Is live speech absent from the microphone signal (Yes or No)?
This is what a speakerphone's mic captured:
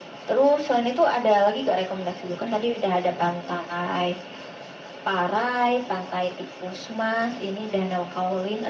Yes